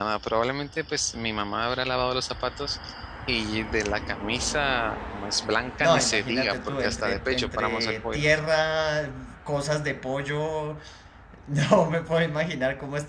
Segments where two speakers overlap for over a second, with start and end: 5.8-8.2

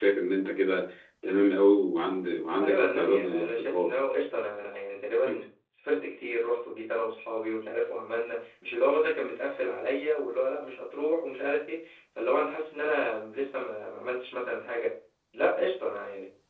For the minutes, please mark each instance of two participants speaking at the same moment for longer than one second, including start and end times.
2.6-3.9

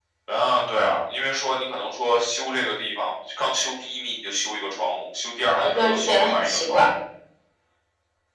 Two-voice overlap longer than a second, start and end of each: 5.5-6.8

